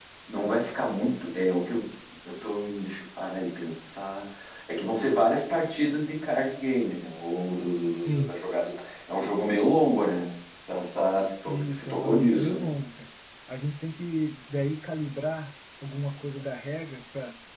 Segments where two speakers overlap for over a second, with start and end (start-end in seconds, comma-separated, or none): 11.5-12.7